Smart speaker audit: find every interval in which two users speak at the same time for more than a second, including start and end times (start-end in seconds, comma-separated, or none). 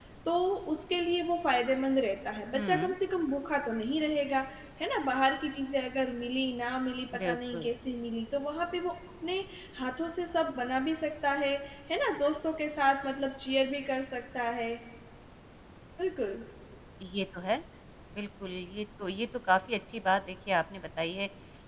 none